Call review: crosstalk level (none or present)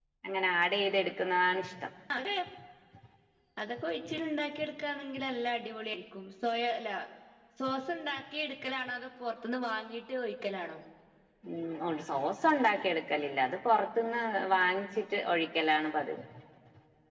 none